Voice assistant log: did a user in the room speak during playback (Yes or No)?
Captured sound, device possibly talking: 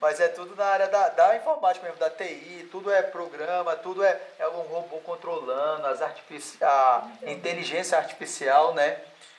Yes